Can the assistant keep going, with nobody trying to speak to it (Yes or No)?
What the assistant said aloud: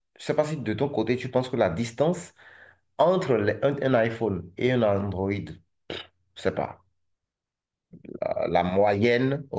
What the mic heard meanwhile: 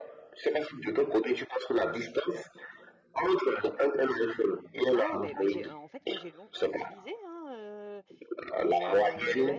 No